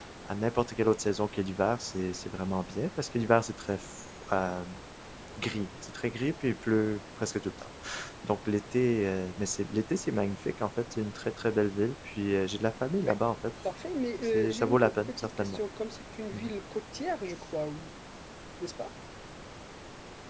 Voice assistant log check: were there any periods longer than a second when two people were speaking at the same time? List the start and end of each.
14.2-15.6

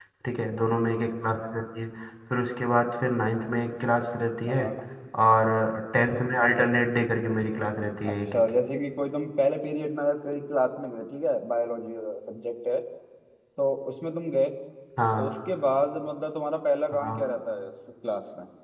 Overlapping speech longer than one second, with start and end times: none

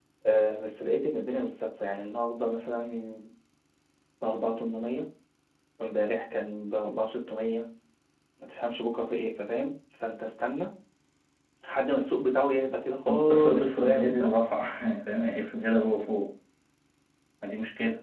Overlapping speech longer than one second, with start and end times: 13.1-14.3

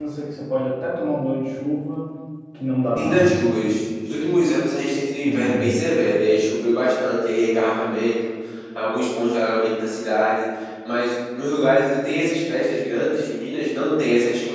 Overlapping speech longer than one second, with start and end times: none

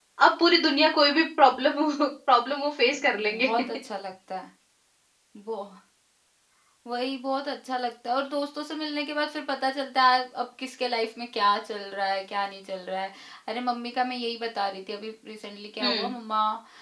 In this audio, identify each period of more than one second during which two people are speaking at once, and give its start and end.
none

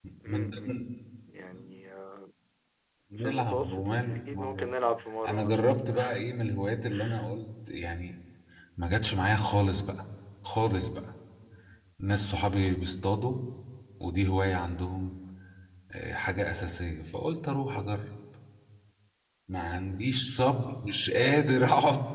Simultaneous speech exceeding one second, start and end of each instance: 3.2-4.7

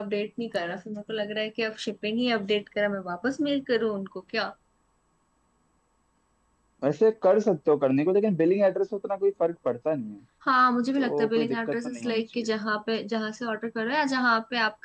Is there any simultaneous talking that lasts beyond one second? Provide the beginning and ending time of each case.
11.0-12.5

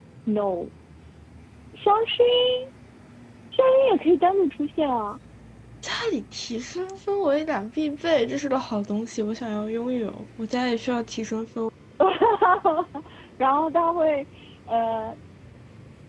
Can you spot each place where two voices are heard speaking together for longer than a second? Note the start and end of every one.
none

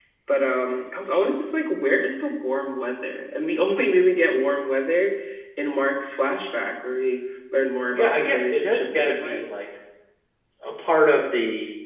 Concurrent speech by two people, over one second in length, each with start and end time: 7.9-9.4

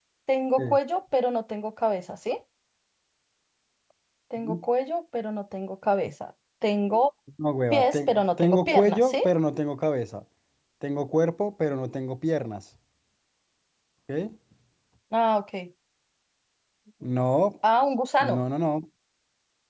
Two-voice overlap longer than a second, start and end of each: 7.7-9.2

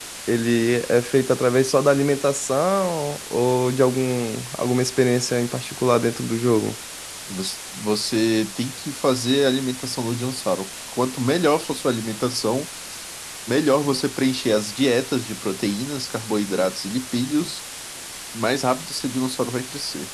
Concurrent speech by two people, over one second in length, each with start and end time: none

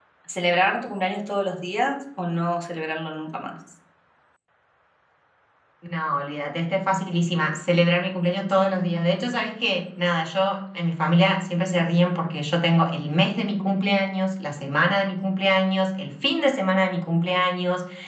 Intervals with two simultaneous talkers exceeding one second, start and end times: none

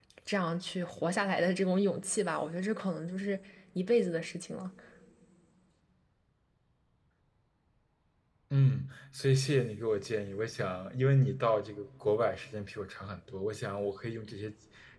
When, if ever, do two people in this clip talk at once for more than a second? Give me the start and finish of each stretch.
none

